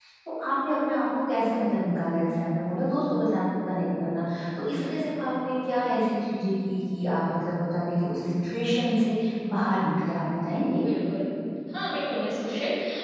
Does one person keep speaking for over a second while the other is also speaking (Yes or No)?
No